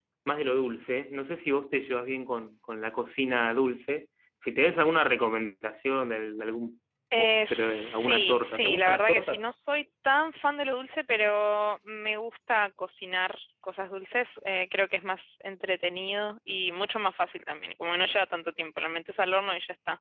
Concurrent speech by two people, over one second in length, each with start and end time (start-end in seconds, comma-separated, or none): 7.2-9.4